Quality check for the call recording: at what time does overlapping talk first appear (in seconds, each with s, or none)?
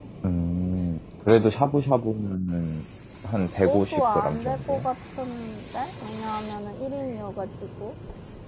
3.6 s